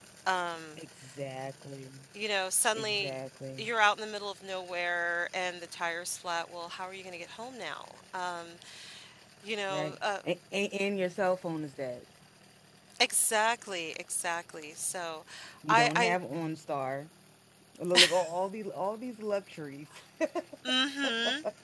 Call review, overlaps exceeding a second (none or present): none